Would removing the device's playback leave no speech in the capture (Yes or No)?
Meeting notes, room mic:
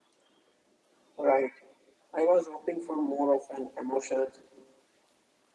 Yes